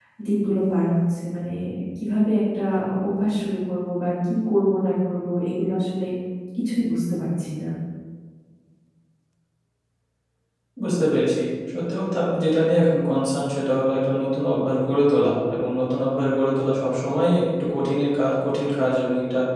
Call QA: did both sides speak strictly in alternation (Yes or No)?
Yes